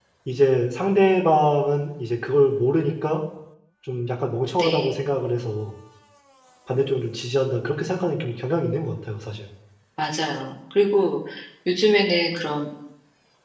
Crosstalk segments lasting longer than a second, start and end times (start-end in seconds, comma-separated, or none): none